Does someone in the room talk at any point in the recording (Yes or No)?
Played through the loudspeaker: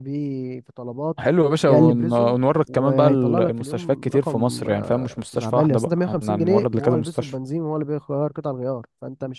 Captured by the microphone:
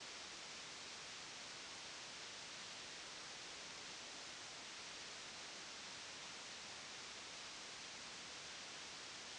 No